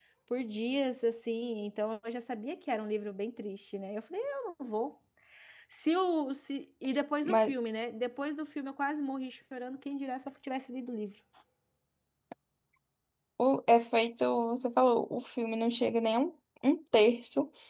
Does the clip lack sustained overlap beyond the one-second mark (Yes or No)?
Yes